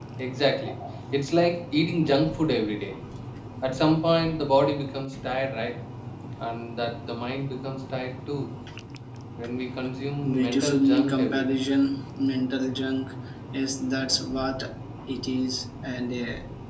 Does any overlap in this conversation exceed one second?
Yes, from 10.2 s

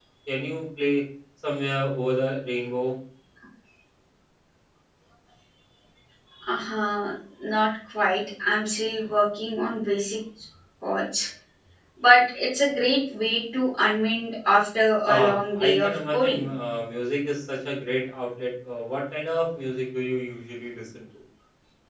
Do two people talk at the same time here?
Yes, from 15.0 s

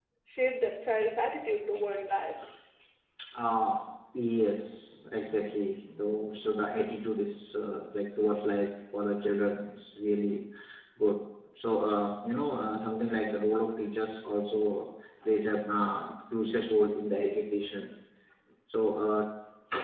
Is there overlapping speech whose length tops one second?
No

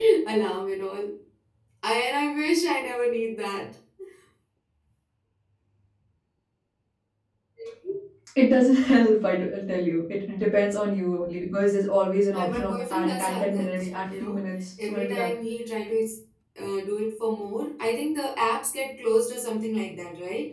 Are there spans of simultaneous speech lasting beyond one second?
Yes, from 12.3 s

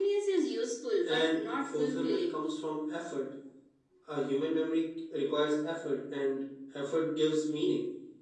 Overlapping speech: Yes, from 1.1 s

